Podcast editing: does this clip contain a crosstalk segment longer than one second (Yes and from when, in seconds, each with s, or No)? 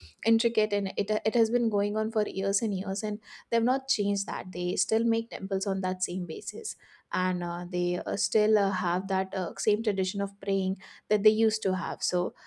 No